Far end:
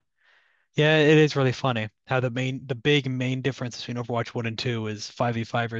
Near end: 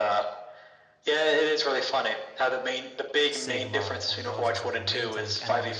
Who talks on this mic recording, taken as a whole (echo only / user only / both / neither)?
both